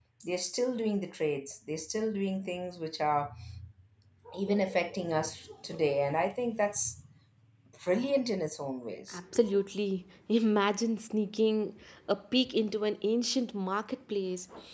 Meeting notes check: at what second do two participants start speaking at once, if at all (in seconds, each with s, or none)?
none